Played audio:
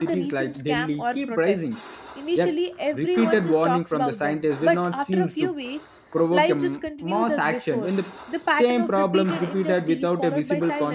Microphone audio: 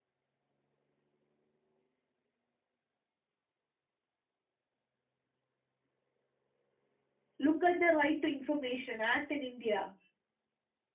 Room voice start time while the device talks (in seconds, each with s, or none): 7.4 s